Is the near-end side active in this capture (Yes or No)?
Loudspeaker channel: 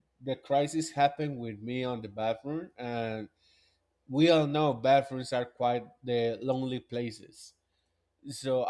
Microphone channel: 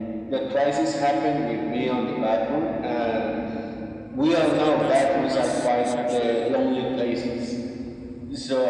Yes